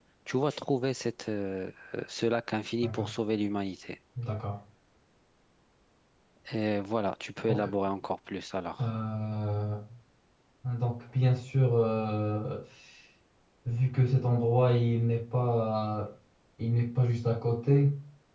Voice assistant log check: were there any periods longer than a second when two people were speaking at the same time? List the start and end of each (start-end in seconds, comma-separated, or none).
none